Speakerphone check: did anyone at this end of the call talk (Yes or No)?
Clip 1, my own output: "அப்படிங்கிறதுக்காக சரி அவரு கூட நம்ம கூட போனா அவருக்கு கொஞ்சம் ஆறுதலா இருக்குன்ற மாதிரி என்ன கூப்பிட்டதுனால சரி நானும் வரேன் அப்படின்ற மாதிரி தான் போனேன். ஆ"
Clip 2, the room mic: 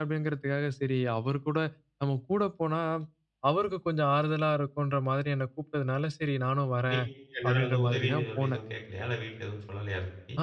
Yes